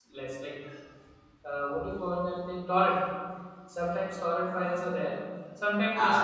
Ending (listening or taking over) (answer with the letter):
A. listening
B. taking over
A